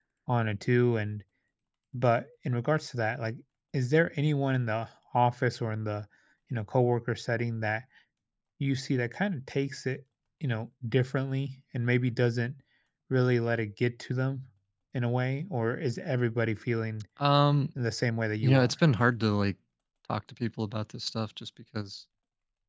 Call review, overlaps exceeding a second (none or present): none